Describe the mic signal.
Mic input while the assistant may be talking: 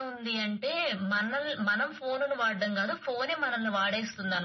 echo only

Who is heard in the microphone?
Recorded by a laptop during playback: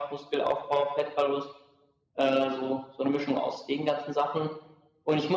echo only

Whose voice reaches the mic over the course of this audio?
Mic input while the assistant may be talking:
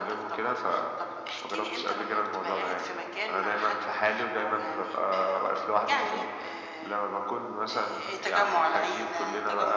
echo only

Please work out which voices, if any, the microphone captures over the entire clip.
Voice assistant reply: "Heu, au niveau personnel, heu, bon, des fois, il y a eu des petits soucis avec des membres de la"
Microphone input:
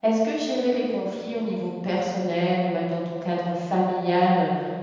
user only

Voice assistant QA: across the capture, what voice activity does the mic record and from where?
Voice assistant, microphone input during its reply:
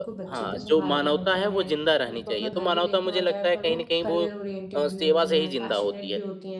both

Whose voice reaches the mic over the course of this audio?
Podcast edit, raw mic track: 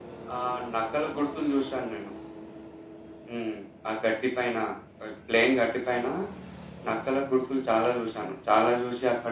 echo only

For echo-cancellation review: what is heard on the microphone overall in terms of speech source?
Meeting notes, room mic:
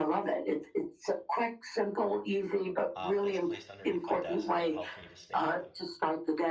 both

